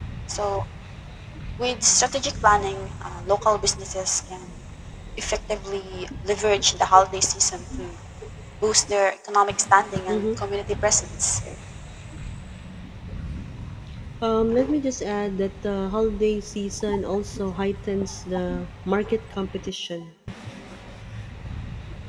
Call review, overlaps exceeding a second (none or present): none